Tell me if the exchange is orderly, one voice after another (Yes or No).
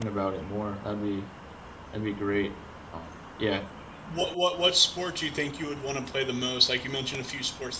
Yes